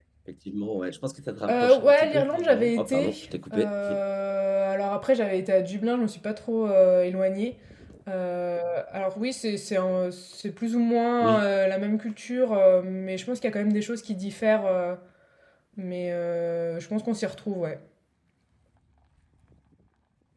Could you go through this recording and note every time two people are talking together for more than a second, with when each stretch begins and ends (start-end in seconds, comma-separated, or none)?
1.5-3.1